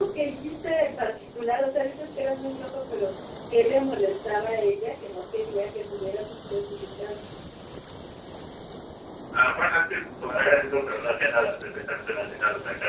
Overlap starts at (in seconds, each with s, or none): none